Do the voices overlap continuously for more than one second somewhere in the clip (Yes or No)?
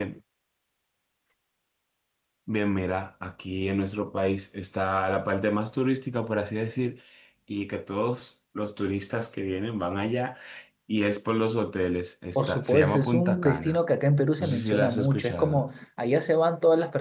Yes